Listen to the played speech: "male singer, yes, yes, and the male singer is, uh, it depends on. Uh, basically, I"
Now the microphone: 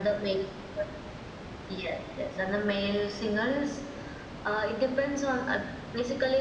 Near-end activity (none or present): none